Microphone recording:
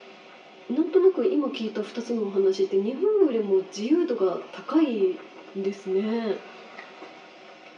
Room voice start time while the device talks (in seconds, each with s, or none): none